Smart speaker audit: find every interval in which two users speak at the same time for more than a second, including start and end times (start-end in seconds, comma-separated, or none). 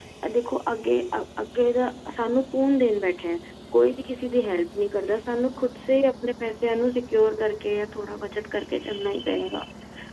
none